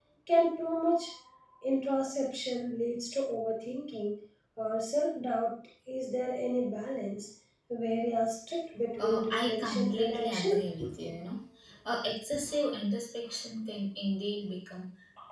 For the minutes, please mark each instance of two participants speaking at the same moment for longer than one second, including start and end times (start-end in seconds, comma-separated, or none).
9.0-10.7